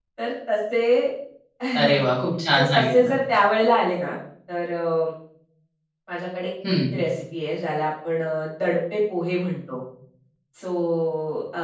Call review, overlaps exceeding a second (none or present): none